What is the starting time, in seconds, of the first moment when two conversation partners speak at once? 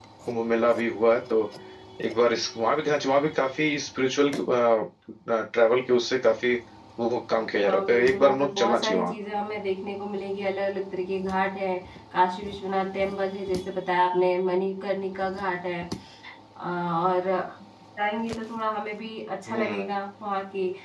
7.6 s

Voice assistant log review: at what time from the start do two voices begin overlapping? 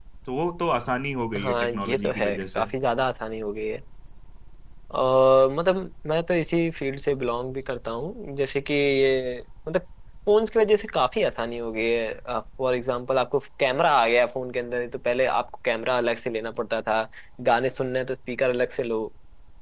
1.4 s

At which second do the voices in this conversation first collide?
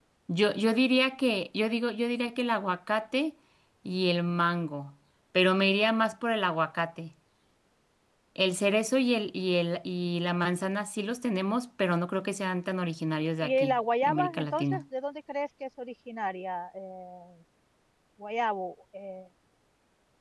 13.4 s

